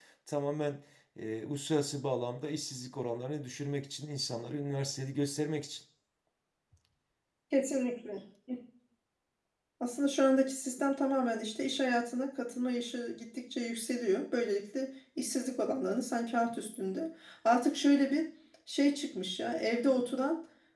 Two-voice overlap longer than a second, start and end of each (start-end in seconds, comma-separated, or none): none